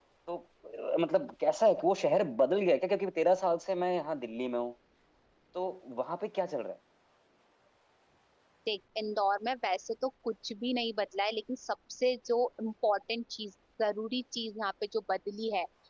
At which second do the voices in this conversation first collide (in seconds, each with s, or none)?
none